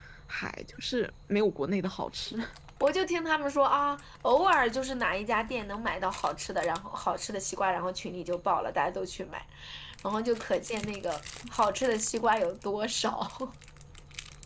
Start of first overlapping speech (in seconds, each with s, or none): none